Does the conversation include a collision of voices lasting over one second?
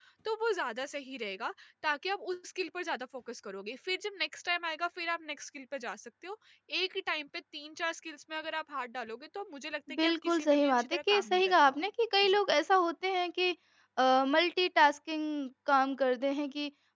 Yes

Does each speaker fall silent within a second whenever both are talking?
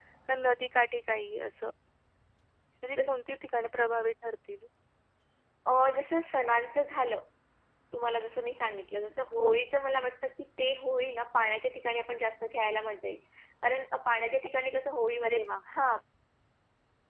Yes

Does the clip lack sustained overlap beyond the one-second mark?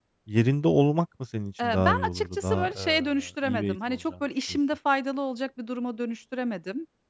No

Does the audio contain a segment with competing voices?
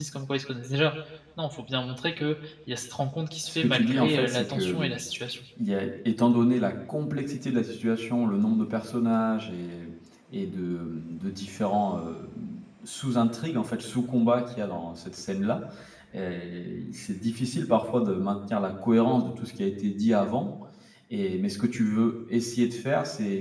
Yes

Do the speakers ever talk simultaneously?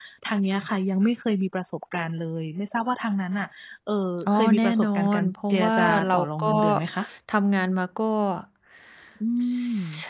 Yes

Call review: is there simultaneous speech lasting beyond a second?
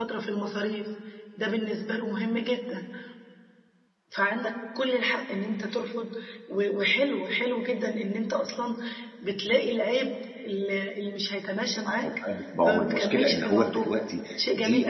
Yes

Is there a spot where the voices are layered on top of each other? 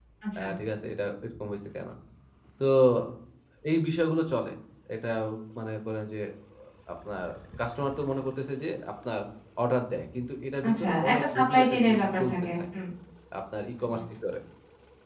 Yes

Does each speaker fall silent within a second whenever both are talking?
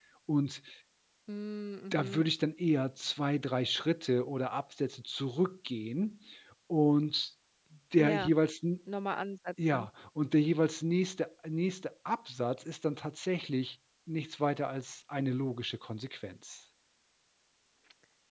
Yes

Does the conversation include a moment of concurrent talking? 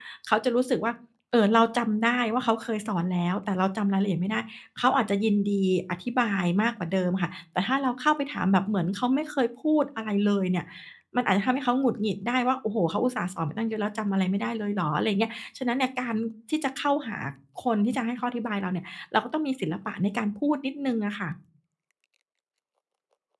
No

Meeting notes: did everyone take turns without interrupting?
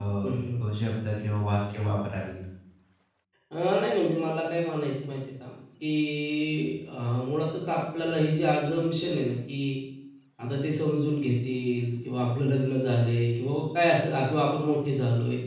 Yes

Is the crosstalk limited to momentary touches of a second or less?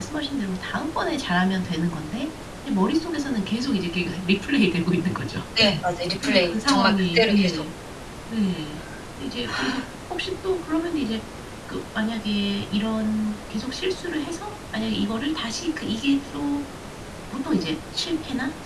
No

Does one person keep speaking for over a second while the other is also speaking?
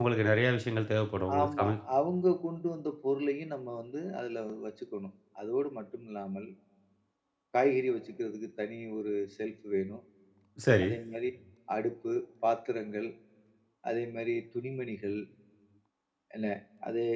No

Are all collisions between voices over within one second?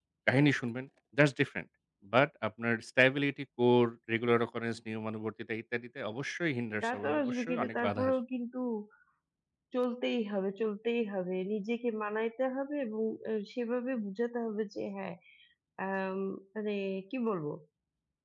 No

